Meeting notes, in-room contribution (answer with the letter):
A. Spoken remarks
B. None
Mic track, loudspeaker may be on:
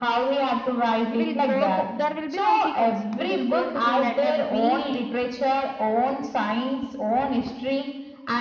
A